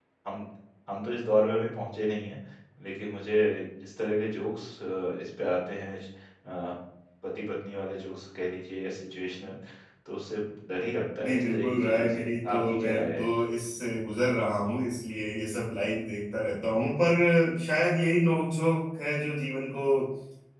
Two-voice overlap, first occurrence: 11.2 s

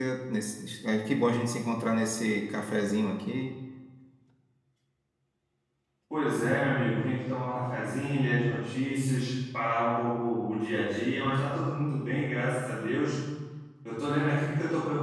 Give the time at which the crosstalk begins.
none

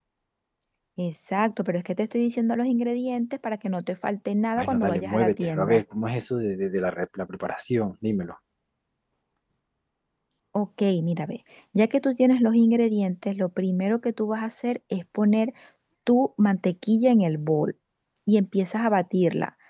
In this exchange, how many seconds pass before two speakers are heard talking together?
4.6 s

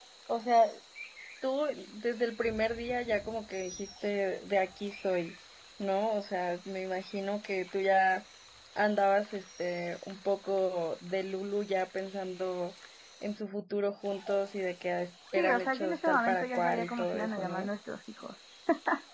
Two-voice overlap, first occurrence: 15.3 s

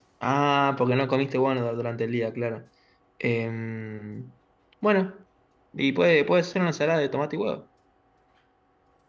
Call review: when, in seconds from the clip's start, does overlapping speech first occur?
none

